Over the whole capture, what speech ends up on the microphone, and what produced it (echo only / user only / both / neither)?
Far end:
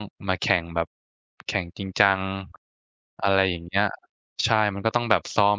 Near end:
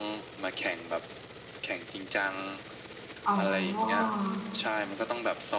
both